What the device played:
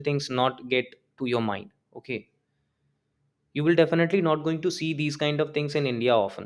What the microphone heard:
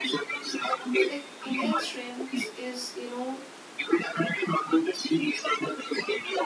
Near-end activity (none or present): present